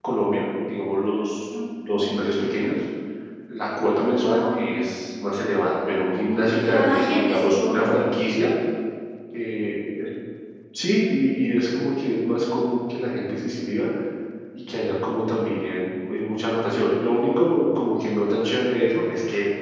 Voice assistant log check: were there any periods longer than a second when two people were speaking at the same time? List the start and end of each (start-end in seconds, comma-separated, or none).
6.6-7.9